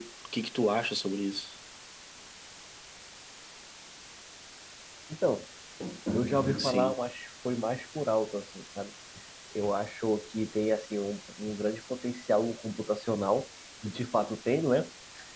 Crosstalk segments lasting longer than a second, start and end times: none

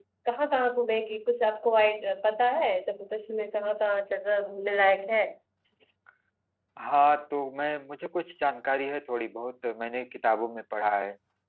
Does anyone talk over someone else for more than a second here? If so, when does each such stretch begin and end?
none

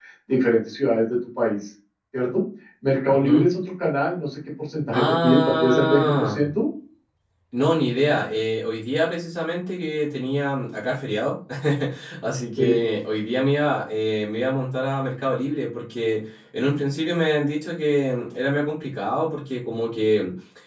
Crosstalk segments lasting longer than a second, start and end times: 4.9-6.5

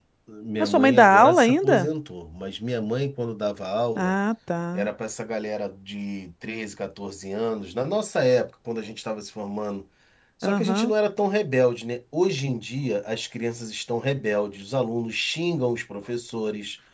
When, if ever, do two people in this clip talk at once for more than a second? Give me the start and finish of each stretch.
0.6-1.9

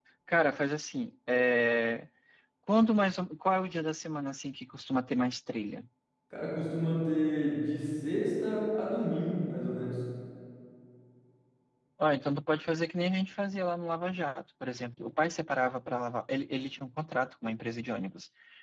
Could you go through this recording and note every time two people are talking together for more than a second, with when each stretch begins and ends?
none

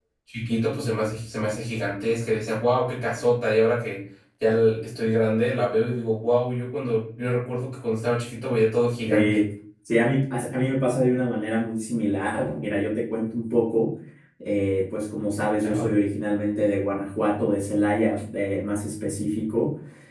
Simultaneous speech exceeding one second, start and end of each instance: none

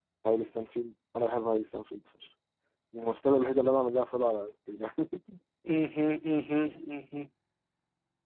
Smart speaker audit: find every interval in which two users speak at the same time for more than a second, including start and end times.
none

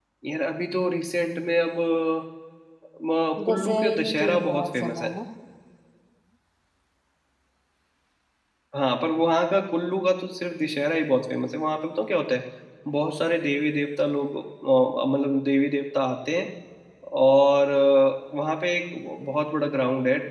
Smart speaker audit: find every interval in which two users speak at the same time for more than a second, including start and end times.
3.5-5.1

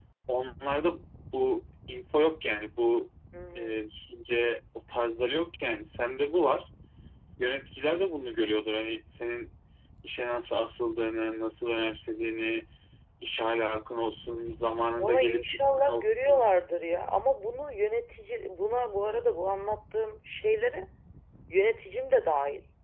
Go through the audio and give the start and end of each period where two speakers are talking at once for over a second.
15.0-16.4

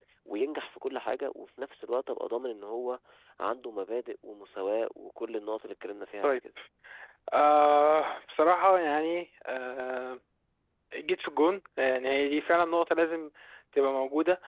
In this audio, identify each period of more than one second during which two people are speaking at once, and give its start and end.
none

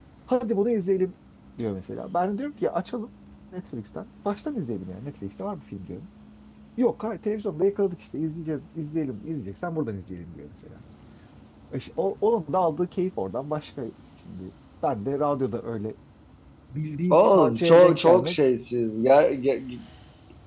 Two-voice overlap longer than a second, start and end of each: 17.1-18.4

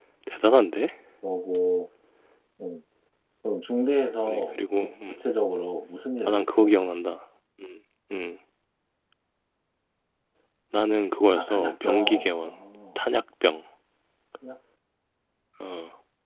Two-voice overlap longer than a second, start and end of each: 11.3-12.5

